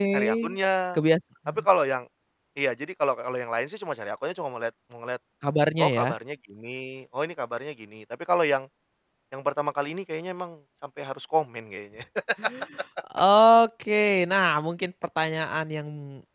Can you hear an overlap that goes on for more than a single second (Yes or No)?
No